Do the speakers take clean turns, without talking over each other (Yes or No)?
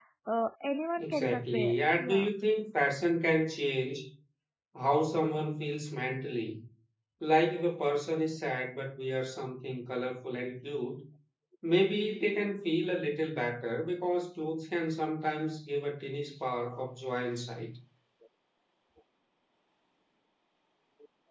No